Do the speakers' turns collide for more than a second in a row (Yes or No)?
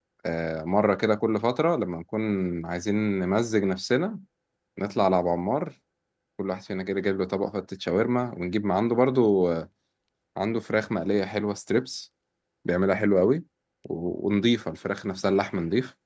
No